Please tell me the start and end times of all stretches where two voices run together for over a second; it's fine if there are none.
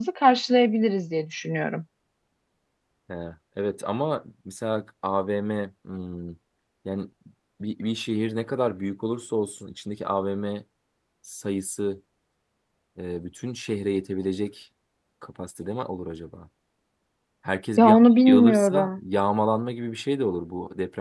17.8-19.0

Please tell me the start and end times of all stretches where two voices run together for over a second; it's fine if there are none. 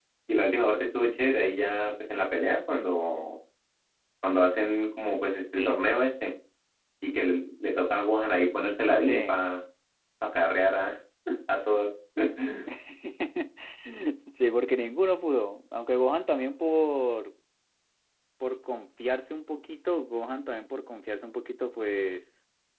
none

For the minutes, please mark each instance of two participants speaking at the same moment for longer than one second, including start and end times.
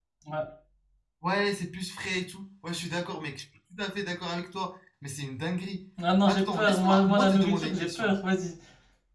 6.3-8.1

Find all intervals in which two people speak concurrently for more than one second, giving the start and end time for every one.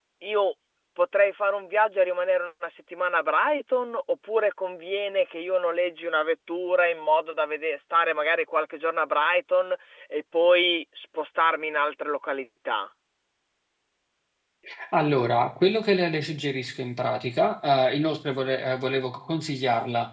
none

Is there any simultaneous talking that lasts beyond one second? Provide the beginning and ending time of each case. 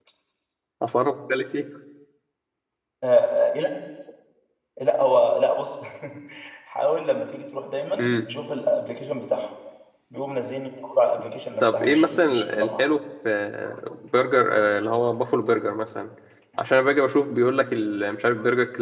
11.6-12.8

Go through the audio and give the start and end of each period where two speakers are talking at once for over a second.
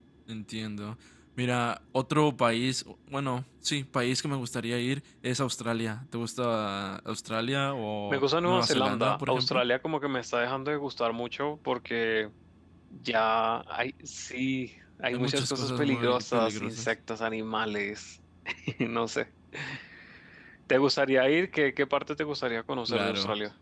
8.1-9.6, 15.1-16.9

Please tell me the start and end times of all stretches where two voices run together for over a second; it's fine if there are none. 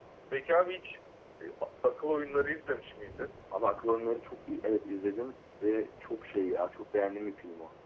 none

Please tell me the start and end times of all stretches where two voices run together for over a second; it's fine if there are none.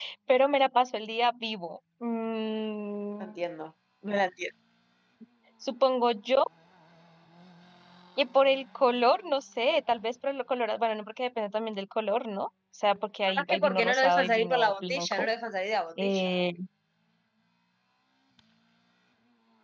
13.3-15.3

